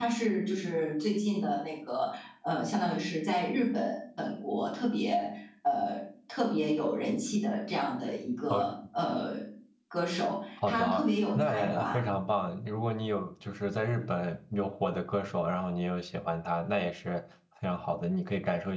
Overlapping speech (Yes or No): Yes